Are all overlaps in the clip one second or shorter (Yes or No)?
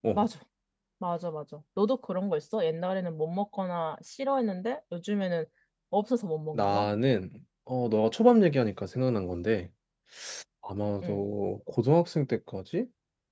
Yes